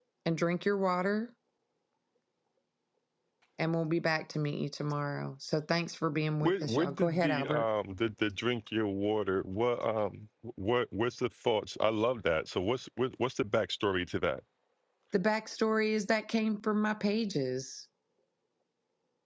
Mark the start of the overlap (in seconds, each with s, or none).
6.4 s